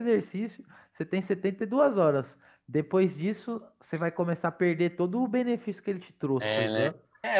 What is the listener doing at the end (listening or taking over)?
taking over